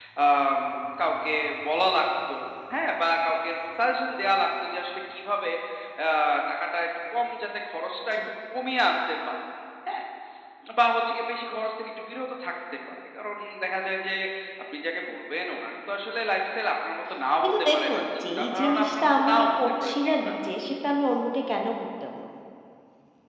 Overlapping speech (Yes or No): Yes